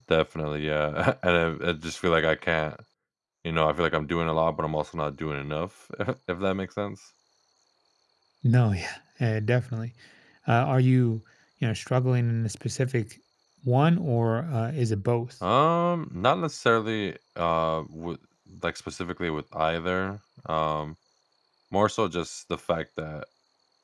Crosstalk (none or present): none